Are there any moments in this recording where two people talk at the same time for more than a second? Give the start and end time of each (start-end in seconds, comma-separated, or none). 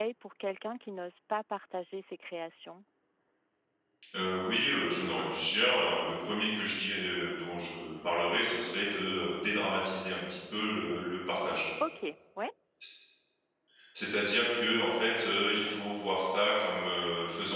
none